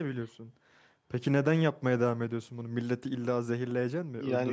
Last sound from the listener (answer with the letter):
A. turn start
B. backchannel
A